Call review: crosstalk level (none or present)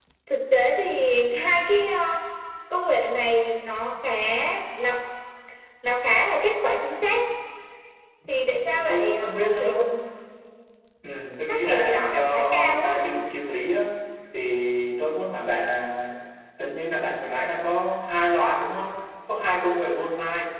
present